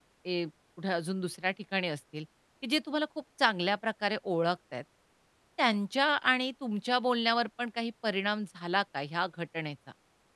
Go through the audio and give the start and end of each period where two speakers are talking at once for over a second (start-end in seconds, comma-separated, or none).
none